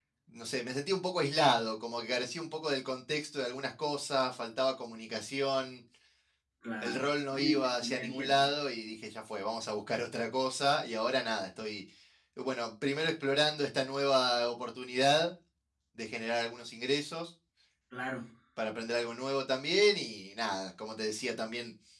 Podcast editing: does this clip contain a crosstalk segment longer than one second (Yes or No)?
Yes